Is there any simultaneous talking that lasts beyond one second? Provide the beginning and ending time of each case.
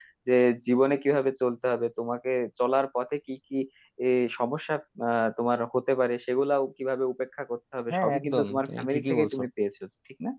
7.9-9.4

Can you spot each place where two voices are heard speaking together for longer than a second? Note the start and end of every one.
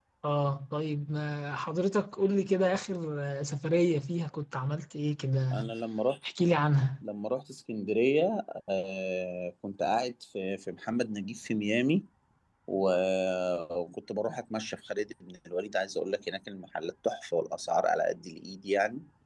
none

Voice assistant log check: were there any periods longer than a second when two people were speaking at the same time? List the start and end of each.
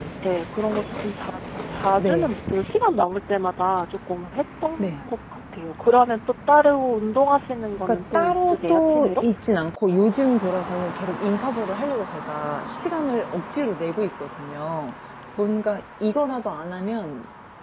7.9-9.1

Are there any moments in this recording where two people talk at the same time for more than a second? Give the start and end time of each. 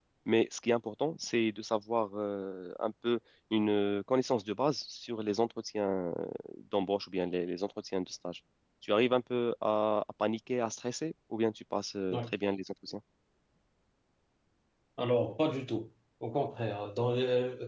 none

